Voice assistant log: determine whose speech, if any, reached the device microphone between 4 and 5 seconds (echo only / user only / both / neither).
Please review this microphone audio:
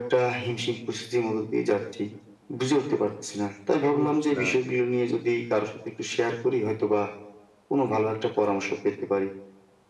both